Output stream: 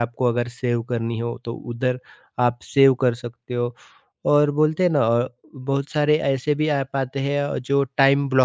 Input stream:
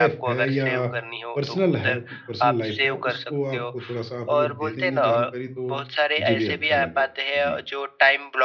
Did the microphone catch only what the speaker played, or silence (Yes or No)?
No